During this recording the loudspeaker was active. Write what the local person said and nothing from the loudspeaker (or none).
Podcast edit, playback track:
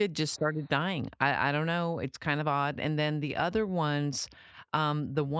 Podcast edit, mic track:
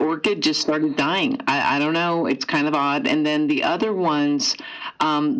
none